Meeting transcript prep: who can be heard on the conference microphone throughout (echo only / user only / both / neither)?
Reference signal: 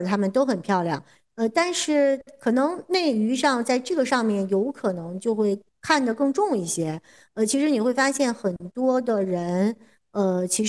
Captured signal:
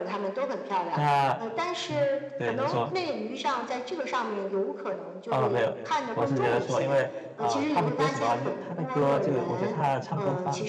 both